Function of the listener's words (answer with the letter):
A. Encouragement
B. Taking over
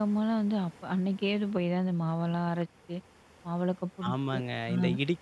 B